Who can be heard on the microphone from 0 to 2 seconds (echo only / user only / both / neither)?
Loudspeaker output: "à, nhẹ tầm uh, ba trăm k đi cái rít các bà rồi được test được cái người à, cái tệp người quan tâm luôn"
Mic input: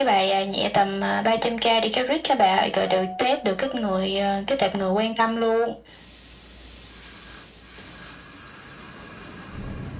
echo only